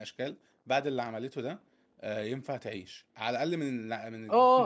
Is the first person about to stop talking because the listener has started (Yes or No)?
Yes